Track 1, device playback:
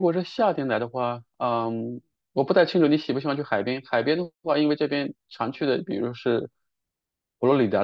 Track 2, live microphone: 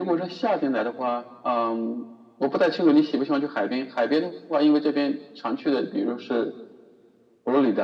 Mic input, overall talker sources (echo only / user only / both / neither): echo only